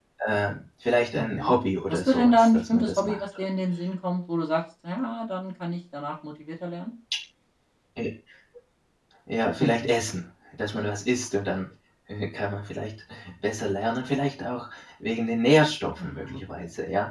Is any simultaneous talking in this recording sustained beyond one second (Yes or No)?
Yes